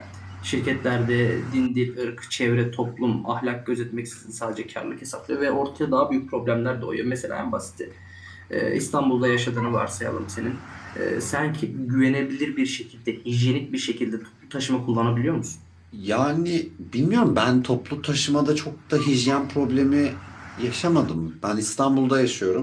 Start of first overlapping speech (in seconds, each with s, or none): none